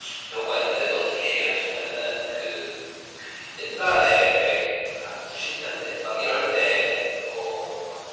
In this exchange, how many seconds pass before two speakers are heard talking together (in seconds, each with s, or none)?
none